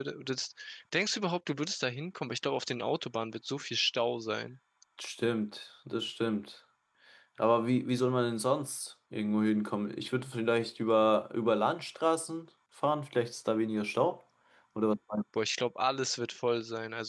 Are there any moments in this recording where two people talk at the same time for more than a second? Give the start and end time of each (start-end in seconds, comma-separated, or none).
none